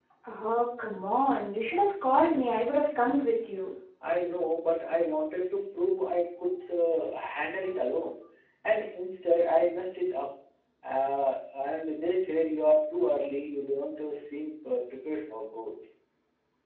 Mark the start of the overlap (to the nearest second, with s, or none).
none